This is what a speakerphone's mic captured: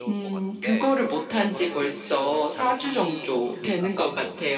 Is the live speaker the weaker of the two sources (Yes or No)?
Yes